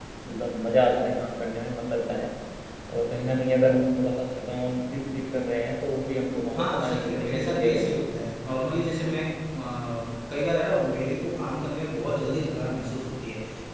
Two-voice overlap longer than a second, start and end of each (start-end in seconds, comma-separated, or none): 6.5-7.9